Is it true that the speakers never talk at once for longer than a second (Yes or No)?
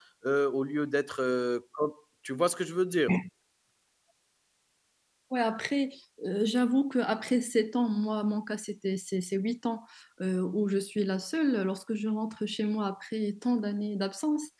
Yes